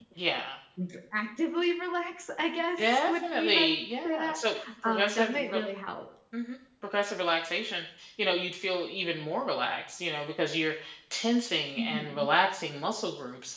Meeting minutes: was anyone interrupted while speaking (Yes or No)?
Yes